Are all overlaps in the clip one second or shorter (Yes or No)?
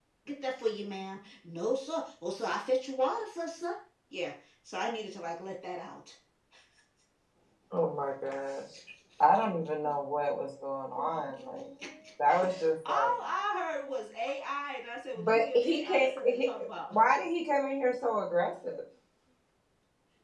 No